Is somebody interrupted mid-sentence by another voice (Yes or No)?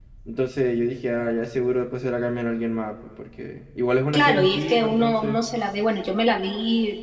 Yes